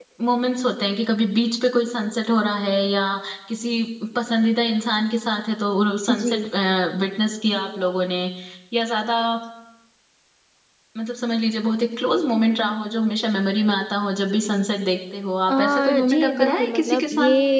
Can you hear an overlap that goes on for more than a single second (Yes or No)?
Yes